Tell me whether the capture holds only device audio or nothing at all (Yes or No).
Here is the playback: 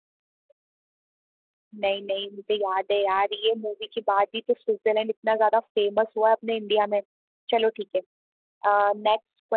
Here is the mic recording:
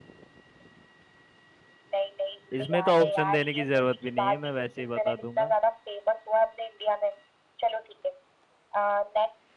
No